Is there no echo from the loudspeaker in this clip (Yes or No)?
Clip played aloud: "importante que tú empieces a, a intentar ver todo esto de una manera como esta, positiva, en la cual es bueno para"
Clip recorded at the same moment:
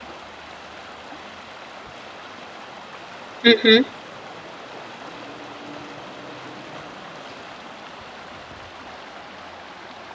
Yes